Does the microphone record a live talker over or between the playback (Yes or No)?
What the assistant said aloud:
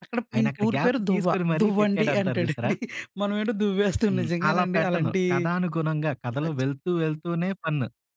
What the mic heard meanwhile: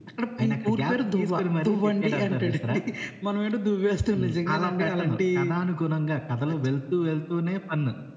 No